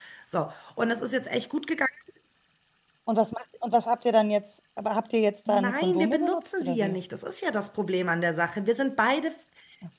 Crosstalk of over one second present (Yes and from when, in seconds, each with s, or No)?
Yes, from 5.5 s